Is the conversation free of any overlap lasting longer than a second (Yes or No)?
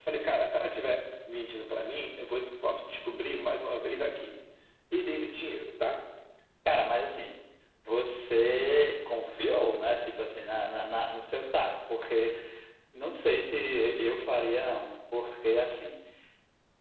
Yes